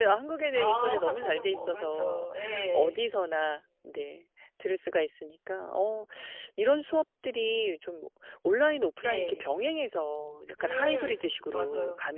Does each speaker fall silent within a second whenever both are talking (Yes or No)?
No